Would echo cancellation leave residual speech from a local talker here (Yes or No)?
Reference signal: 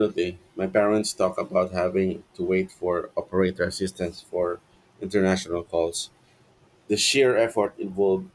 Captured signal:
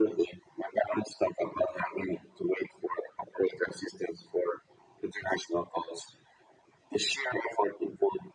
No